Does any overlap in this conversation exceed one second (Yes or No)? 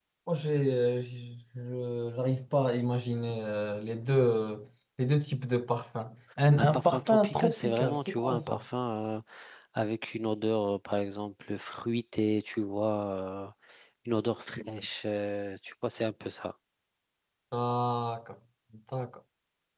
Yes